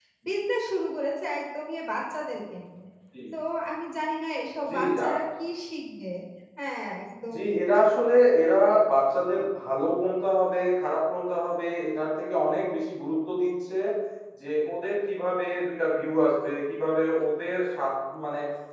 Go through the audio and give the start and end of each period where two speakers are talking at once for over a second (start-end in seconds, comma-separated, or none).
none